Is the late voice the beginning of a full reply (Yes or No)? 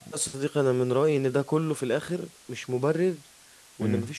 No